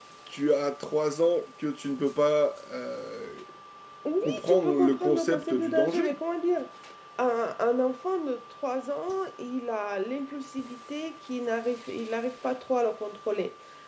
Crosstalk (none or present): present